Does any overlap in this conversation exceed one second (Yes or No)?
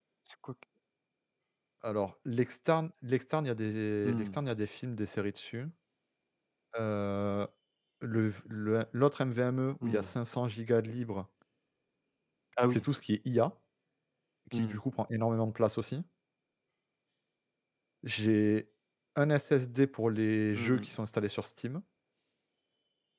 No